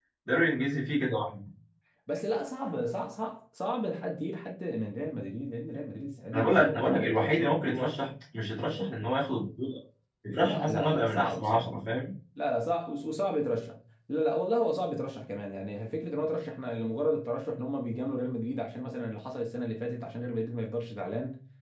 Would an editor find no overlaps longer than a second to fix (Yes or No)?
No